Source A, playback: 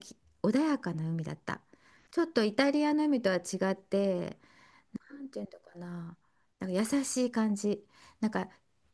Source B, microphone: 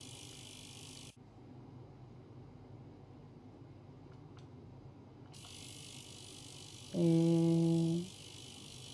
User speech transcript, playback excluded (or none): えー、